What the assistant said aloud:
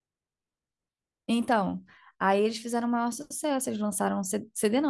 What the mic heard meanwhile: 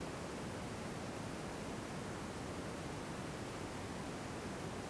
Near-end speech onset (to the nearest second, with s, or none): none